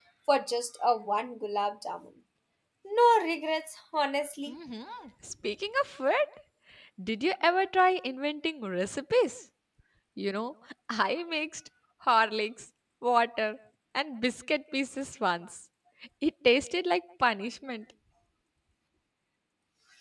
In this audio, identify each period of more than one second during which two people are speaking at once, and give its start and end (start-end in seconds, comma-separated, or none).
none